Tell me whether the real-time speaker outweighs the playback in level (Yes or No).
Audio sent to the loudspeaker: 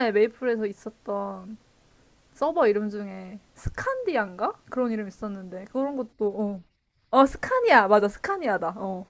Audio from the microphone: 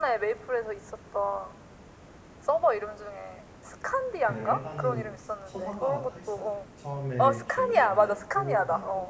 No